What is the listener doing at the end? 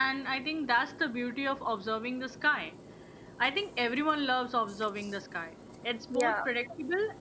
listening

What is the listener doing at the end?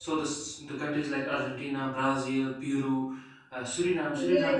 taking over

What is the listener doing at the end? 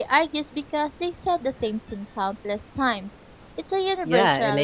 taking over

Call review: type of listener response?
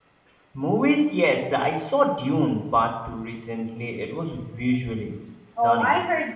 taking over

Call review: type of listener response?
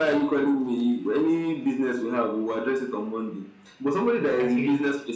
listening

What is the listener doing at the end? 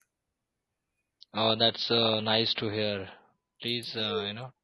listening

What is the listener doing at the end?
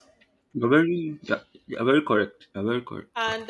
taking over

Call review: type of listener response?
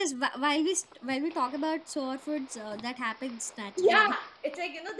taking over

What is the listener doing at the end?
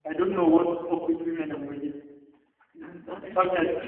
listening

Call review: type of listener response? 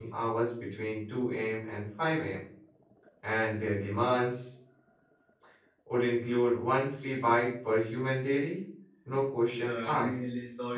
taking over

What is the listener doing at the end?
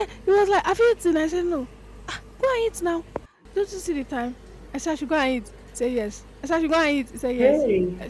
listening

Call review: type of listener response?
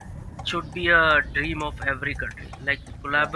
listening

